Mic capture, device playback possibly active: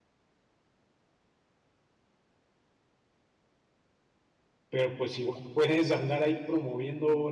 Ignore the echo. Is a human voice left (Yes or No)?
Yes